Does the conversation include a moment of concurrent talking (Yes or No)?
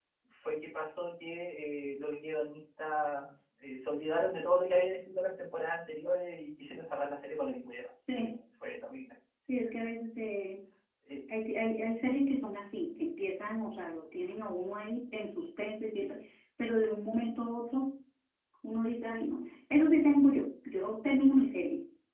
No